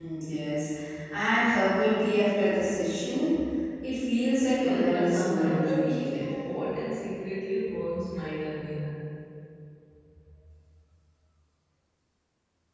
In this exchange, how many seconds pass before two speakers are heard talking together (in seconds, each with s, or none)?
4.6 s